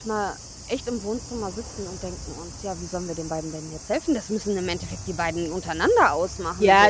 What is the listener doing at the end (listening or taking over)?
taking over